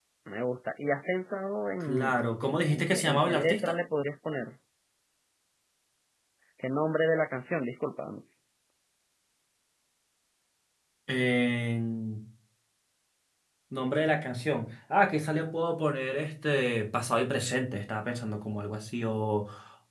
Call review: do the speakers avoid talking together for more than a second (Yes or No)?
No